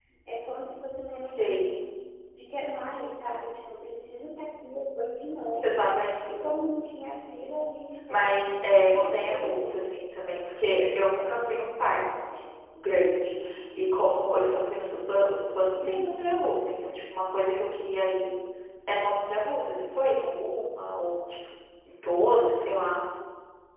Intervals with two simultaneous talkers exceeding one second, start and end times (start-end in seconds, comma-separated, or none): 8.1-9.7